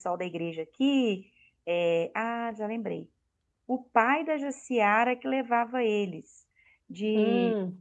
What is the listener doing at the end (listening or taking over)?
listening